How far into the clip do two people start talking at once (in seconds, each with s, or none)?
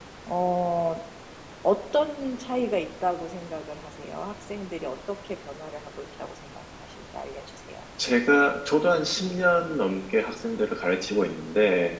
none